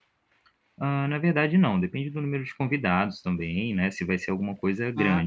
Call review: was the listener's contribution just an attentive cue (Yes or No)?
No